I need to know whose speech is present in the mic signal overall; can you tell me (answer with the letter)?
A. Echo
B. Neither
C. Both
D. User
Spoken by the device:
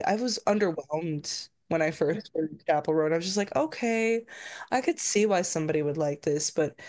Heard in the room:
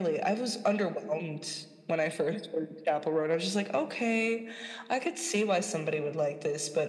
A